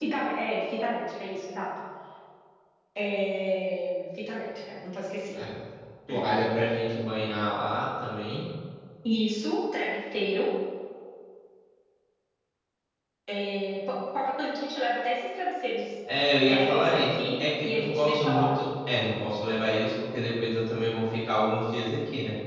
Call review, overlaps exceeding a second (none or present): present